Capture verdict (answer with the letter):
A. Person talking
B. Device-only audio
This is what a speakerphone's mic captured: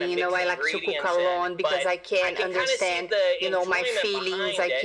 B